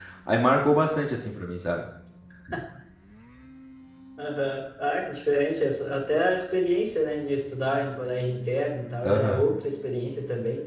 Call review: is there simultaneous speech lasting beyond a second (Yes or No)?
No